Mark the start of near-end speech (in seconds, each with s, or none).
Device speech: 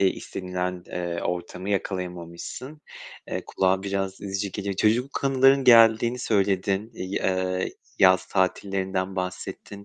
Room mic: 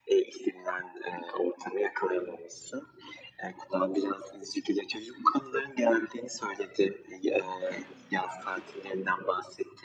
none